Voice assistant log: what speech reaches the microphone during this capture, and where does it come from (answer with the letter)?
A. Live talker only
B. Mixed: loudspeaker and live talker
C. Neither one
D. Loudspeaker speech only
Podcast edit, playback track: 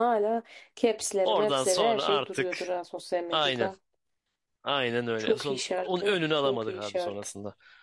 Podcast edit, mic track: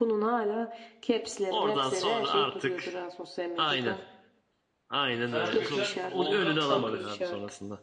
B